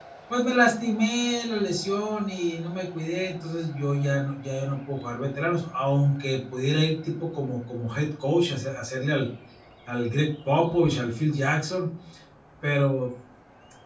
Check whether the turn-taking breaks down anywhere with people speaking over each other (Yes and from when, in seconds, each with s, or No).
No